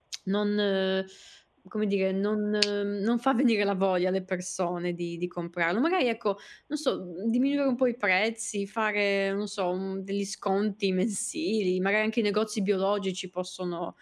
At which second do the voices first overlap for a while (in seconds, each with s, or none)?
none